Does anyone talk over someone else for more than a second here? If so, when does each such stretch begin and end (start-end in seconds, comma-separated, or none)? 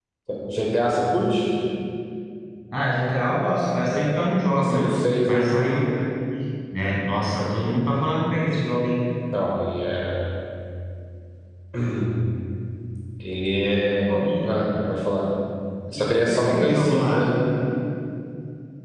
16.0-17.2